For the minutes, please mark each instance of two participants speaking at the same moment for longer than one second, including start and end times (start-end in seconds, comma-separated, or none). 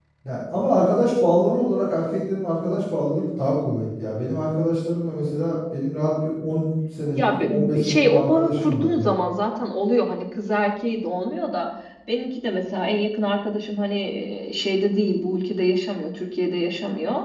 7.2-9.1